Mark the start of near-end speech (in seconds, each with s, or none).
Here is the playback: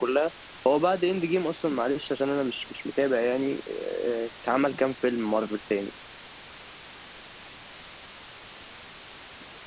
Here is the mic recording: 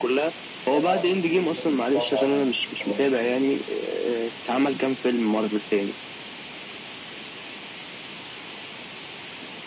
0.7 s